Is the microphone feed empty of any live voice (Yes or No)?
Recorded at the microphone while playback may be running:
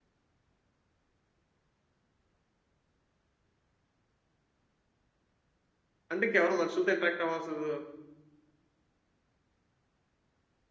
No